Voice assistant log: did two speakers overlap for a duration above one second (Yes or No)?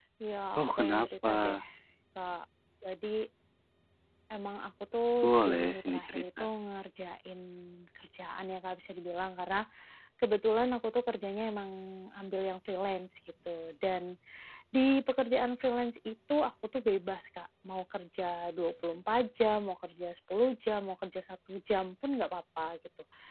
Yes